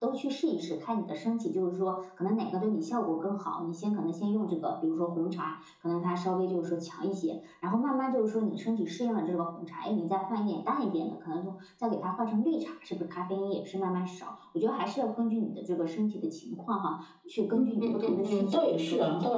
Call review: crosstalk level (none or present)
present